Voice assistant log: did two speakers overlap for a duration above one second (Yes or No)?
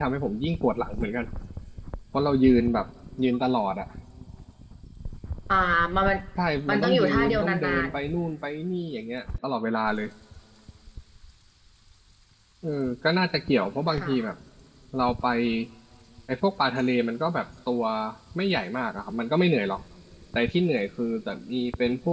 Yes